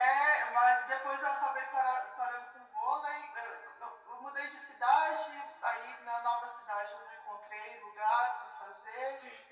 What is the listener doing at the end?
listening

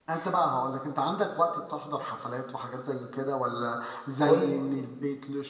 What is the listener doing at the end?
listening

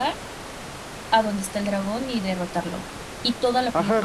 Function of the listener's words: taking over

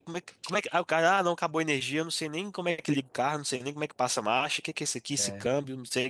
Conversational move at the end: listening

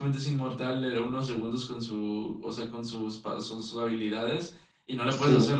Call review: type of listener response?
listening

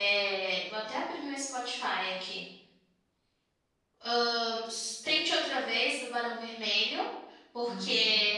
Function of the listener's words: listening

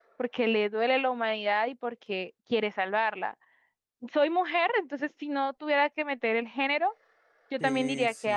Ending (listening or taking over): taking over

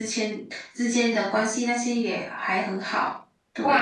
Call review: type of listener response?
taking over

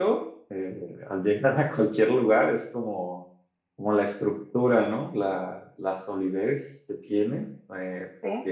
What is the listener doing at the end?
listening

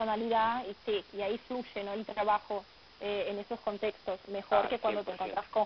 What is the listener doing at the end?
listening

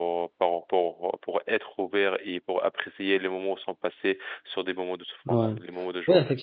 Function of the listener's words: taking over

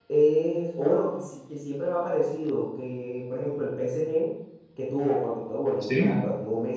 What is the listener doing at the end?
listening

